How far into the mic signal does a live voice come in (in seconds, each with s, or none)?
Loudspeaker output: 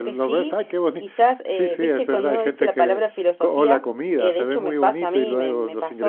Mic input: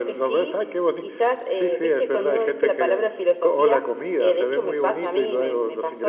none